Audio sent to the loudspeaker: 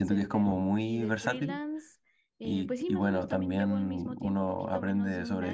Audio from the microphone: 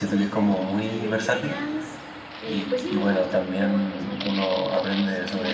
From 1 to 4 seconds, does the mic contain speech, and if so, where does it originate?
echo only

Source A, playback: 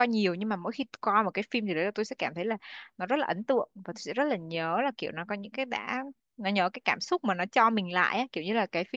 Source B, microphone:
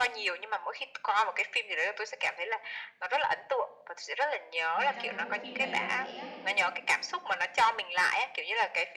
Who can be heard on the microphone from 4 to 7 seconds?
both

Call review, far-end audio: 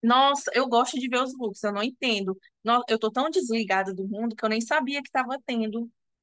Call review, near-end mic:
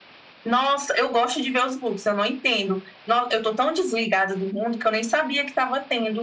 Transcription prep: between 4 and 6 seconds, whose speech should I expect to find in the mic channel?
echo only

